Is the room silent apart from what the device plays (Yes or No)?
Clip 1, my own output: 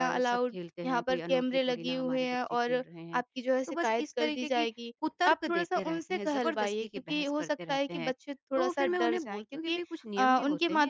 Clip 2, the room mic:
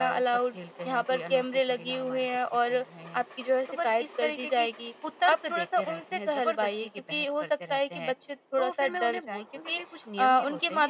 Yes